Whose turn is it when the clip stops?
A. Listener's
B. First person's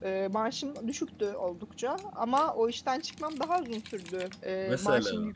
B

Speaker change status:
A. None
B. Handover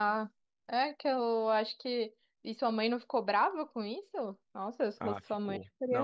B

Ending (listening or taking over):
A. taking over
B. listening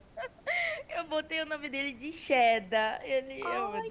A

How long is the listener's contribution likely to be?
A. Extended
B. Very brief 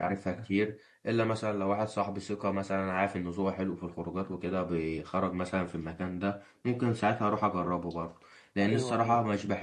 B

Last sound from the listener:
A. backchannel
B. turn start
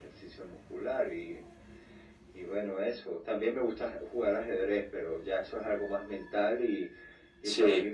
A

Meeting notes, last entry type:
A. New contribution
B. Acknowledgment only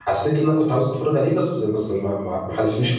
A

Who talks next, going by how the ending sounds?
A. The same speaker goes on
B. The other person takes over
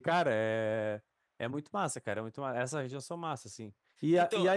A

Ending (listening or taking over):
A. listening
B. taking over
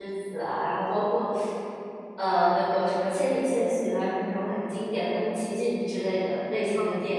B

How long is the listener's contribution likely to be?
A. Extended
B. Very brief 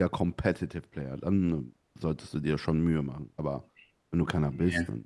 B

